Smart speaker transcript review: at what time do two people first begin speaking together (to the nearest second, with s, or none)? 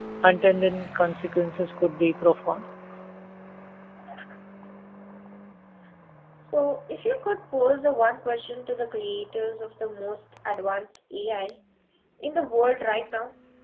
none